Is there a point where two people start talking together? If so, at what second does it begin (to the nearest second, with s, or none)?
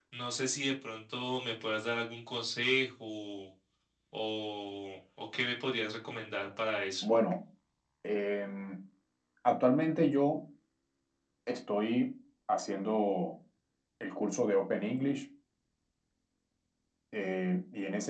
none